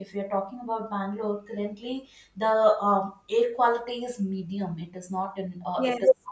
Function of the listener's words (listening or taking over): listening